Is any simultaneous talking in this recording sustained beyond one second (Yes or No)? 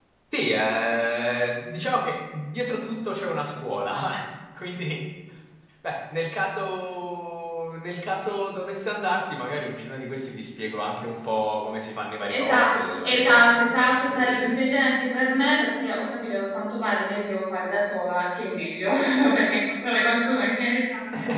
Yes